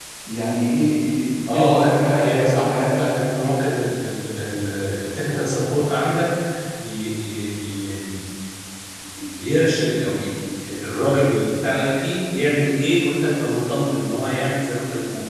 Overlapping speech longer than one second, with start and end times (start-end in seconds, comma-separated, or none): 1.5-3.1